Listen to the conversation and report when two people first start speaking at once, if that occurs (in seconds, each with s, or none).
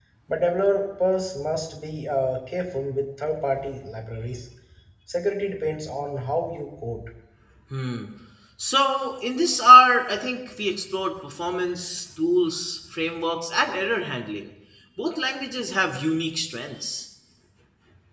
none